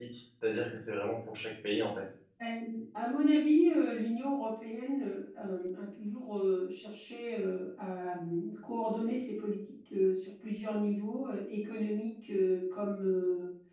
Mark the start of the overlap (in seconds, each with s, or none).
none